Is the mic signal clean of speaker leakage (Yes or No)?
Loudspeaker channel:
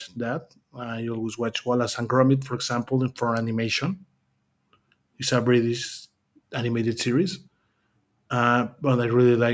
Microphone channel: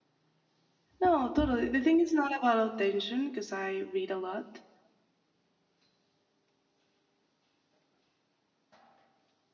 Yes